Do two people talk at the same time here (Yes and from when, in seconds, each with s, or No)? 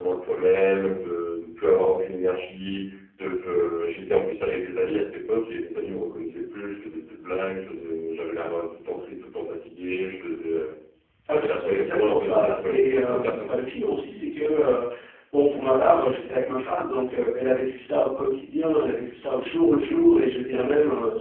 Yes, from 11.3 s